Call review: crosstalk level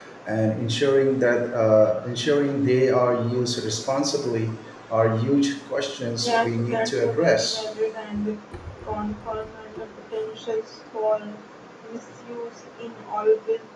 present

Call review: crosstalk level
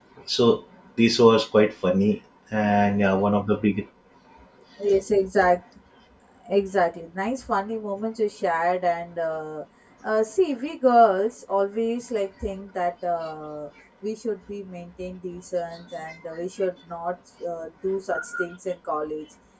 none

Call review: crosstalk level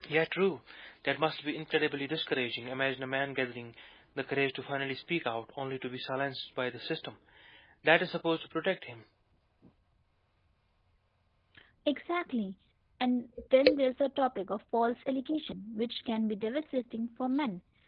none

